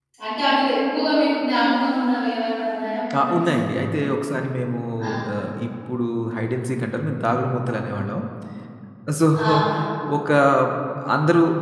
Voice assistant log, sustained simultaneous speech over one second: none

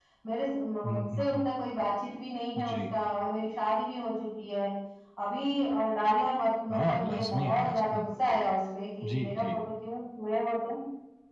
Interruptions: present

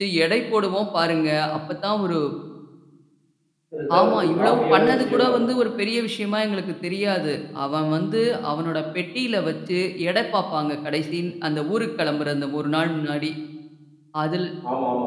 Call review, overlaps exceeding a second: present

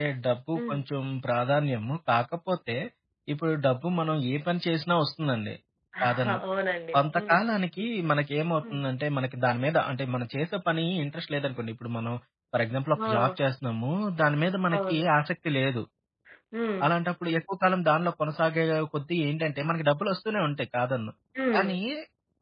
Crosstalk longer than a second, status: none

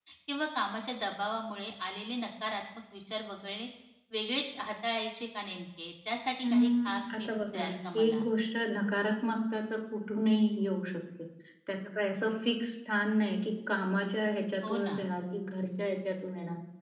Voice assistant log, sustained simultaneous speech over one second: present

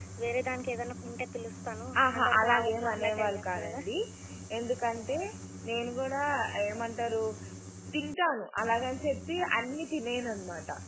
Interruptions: present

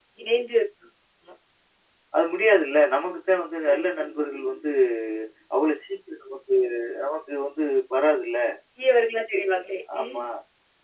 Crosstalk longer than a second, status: none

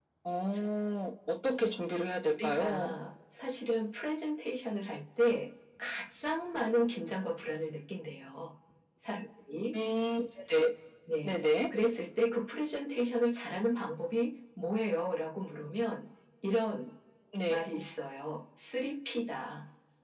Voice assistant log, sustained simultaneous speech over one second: none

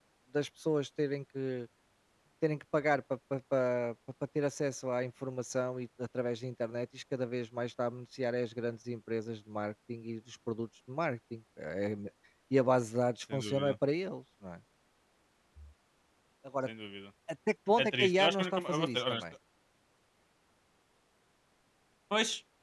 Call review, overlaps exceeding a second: present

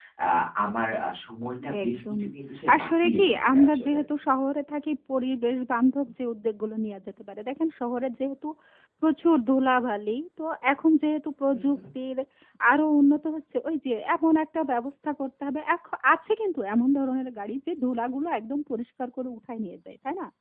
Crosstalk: present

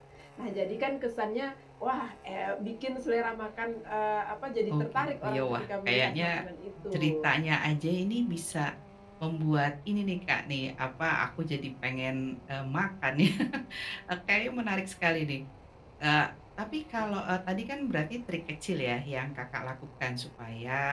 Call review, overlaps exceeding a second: present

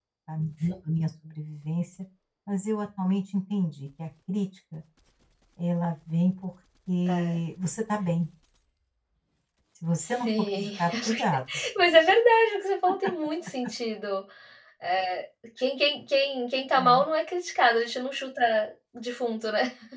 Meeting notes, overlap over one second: present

